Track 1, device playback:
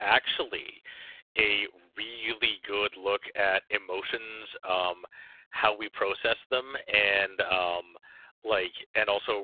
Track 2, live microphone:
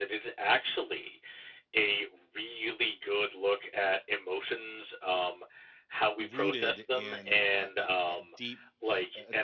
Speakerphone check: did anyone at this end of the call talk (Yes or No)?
Yes